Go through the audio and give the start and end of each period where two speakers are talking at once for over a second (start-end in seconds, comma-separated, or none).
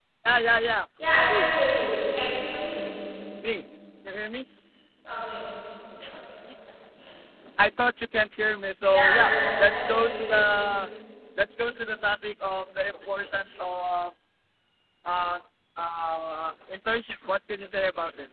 8.9-10.4